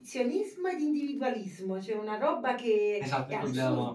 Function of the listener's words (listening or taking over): taking over